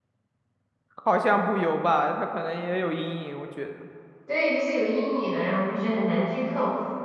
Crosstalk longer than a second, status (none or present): none